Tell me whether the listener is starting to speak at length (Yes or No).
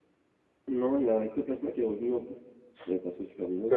Yes